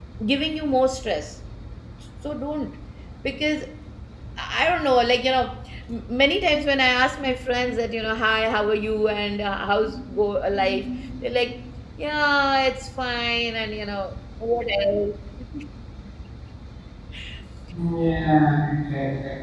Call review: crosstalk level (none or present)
none